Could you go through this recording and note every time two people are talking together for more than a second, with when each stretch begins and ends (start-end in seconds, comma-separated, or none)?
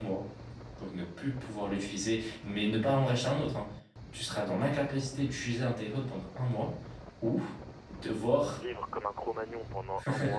none